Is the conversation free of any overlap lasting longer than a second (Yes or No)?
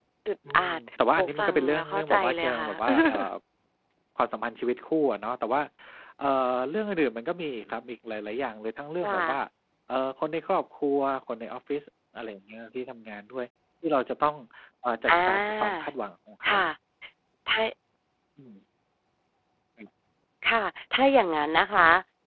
No